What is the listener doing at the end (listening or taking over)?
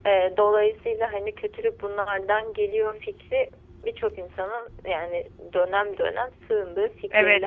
taking over